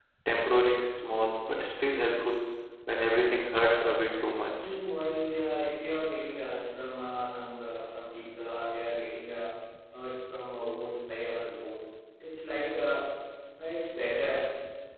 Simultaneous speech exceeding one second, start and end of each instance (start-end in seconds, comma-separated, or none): none